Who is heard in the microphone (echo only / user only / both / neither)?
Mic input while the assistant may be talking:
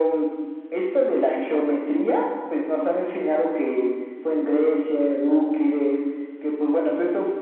echo only